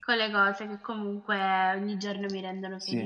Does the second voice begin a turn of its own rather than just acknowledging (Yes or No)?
Yes